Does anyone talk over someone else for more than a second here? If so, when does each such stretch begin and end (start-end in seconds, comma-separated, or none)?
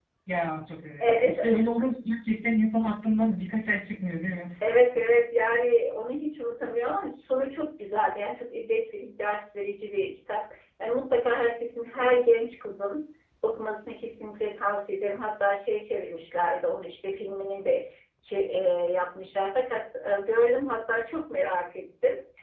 none